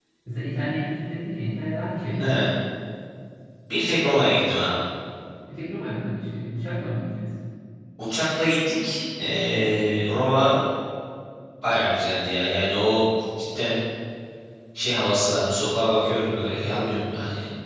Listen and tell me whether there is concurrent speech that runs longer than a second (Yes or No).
No